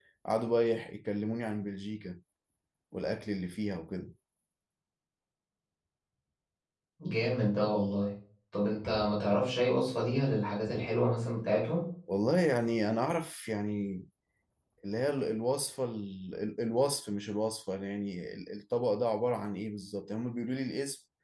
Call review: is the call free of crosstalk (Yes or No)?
Yes